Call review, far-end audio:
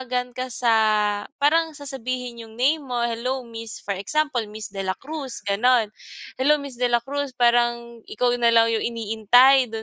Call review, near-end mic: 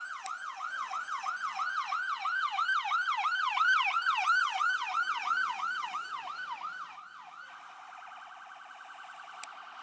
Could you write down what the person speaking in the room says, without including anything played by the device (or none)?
none